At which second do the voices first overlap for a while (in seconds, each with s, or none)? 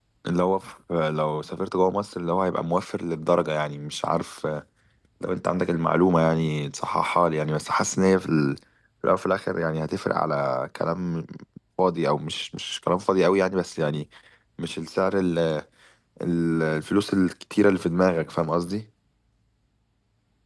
none